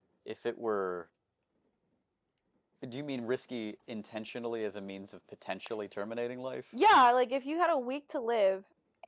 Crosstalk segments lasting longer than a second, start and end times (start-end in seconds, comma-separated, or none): none